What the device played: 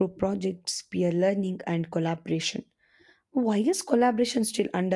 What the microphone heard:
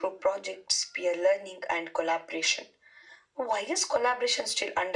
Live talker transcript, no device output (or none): none